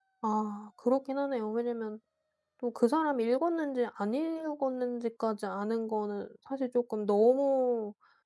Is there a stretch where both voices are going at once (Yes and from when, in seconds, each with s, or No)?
No